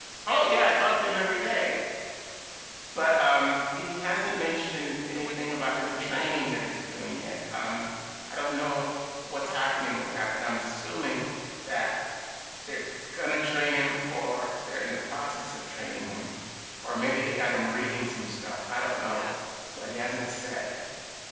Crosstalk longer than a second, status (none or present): present